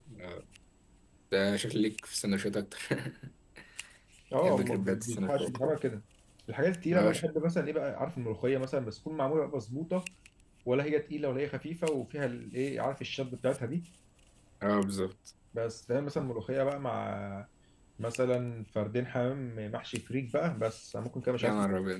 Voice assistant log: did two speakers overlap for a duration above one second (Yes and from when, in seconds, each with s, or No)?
Yes, from 4.4 s